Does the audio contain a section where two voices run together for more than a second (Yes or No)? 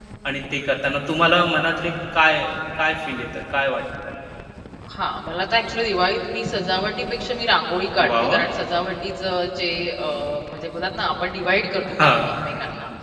No